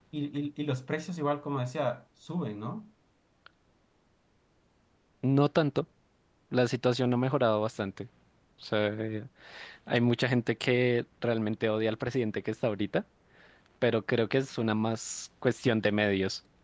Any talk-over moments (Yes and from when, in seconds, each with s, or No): No